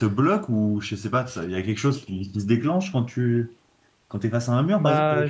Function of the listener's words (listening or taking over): taking over